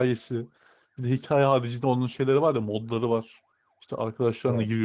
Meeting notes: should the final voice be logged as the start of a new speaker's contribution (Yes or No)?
No